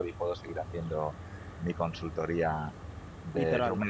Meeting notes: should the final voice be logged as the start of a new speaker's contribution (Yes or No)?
No